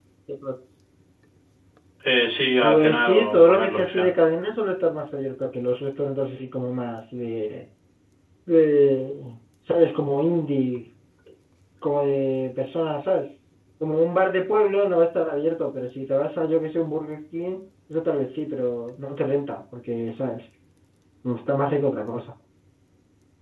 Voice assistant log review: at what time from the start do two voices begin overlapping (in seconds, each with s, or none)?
2.6 s